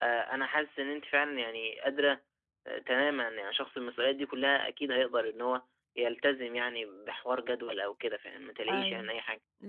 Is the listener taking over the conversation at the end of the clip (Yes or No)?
Yes